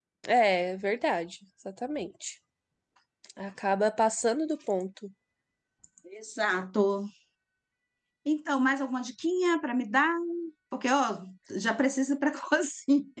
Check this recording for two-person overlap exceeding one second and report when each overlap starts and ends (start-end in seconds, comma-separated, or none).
none